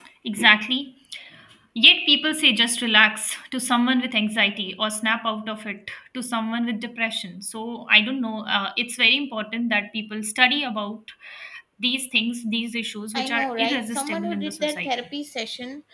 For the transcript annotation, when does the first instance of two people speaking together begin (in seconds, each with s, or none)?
13.1 s